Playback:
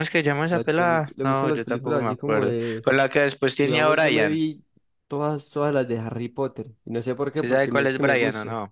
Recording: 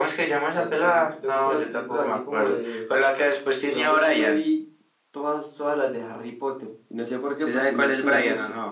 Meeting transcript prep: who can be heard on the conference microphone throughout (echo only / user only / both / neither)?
echo only